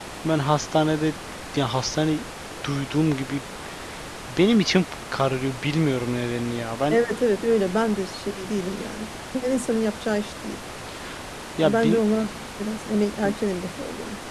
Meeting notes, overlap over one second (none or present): none